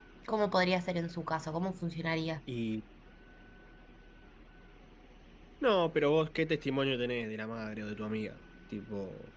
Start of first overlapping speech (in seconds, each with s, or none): none